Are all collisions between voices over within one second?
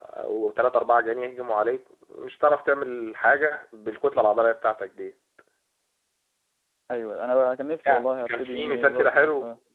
No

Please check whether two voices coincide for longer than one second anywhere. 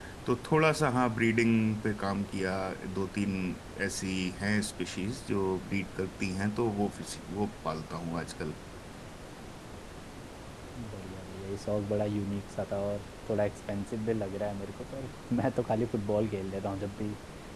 No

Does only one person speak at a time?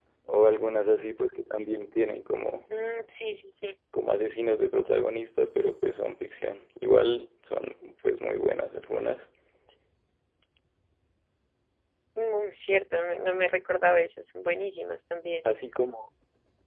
Yes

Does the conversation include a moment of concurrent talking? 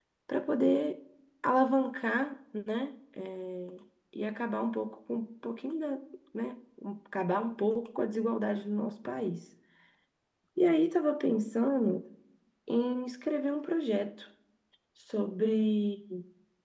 No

